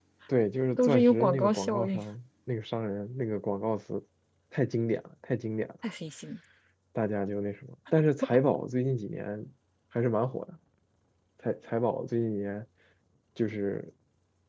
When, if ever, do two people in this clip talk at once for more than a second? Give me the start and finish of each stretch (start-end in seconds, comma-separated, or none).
0.8-2.0